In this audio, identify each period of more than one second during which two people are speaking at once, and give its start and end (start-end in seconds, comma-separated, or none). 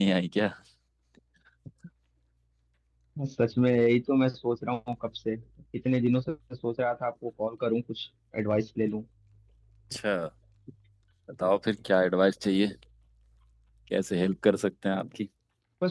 none